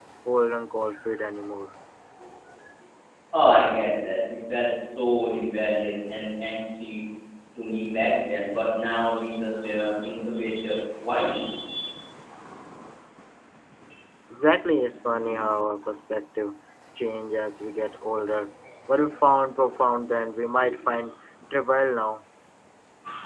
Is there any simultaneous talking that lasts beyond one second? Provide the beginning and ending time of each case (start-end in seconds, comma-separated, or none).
none